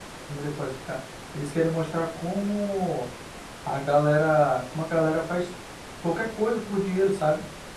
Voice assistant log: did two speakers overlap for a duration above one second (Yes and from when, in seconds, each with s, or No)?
No